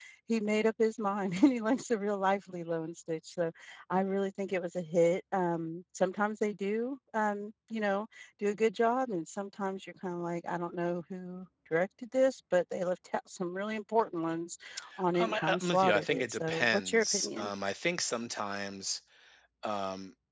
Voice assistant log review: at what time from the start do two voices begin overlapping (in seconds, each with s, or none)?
15.2 s